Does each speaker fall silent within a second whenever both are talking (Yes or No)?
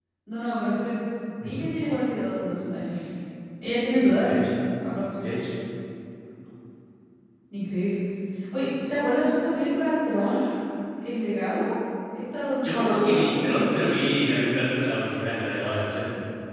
No